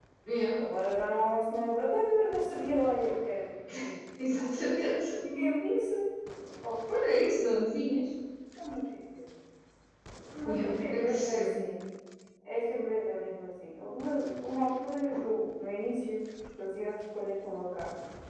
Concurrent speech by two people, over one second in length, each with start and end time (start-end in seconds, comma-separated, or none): 10.4-11.7